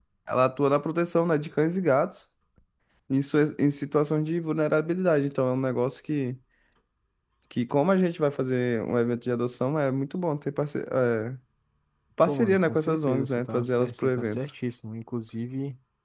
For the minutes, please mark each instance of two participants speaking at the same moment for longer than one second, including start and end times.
12.3-14.5

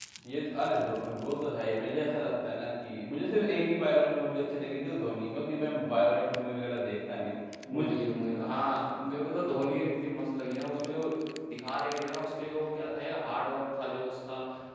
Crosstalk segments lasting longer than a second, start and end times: none

